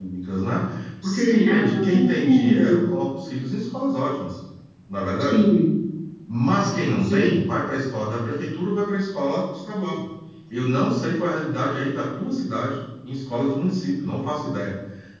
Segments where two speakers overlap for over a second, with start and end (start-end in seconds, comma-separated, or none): 1.0-2.8